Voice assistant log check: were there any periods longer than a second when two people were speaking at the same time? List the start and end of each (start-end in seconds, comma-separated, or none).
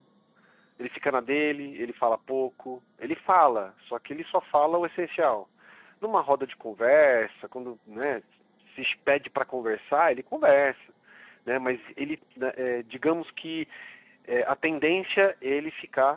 none